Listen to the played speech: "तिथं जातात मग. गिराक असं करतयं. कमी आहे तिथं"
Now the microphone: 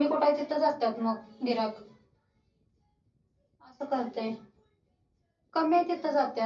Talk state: echo only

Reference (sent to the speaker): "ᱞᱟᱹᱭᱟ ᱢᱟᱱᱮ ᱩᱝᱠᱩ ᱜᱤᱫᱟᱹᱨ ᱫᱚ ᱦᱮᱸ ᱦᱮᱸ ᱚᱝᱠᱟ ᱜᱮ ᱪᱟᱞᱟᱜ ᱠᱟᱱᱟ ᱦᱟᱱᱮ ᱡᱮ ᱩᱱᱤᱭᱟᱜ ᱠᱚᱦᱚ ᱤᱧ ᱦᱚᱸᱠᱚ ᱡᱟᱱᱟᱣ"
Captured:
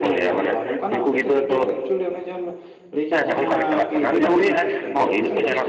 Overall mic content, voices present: both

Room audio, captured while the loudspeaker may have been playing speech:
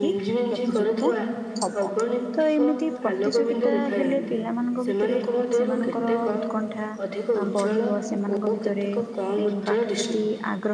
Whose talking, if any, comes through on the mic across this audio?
both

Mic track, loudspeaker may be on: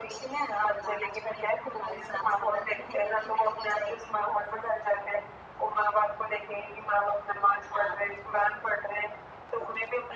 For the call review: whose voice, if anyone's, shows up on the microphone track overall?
echo only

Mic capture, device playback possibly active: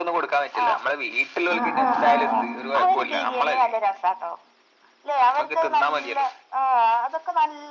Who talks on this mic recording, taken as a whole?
both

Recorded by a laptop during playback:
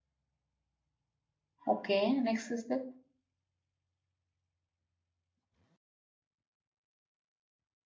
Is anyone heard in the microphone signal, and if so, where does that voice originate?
user only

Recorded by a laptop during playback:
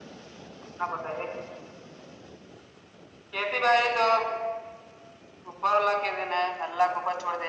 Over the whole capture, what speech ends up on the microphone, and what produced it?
echo only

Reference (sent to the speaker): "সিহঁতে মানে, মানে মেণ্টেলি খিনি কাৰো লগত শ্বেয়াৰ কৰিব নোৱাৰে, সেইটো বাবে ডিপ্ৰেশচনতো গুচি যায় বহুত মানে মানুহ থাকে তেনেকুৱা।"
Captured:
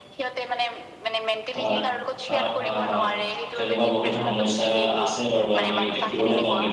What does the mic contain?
both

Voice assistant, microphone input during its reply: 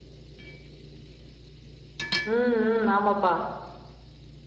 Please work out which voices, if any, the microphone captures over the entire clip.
user only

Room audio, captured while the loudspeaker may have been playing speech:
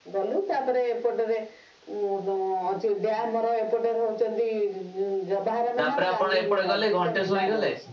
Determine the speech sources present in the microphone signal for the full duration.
both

